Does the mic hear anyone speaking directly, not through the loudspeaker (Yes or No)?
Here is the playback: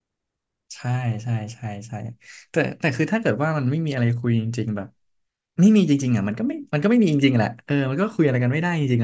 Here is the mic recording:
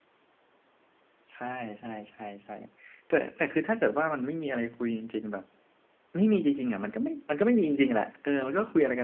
No